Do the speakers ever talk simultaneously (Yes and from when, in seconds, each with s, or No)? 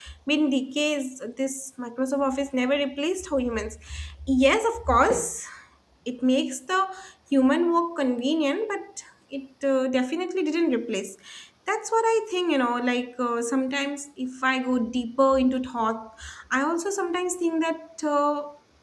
No